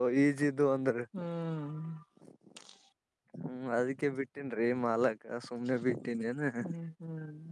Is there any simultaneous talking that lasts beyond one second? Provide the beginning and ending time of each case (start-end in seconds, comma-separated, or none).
none